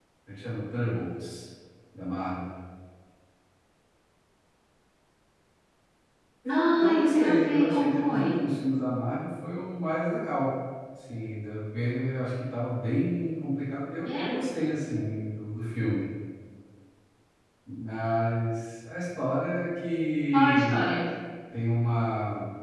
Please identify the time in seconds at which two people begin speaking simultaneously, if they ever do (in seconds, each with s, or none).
6.5 s